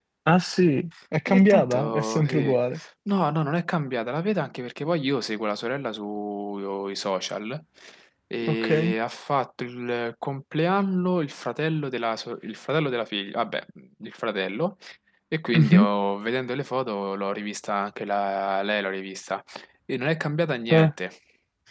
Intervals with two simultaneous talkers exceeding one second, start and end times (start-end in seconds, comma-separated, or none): 1.3-2.6